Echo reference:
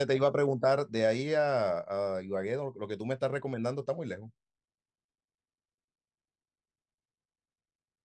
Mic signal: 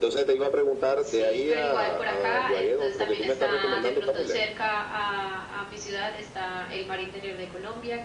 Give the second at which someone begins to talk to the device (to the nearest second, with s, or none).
1 s